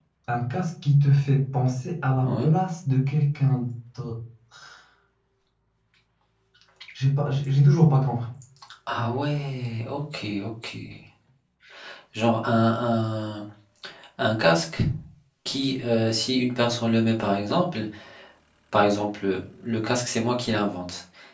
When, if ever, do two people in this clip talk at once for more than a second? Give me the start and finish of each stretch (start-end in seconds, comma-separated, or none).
none